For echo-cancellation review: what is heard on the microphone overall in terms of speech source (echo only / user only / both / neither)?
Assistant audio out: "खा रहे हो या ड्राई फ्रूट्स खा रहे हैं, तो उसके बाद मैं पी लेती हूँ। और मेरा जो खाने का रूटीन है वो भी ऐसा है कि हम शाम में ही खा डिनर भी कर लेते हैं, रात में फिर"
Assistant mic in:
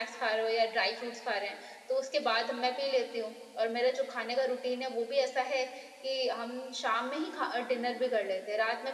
echo only